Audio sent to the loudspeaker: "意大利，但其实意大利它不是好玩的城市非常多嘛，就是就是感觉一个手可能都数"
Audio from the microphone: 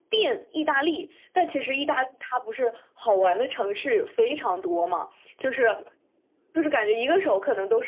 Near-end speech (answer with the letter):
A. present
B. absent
B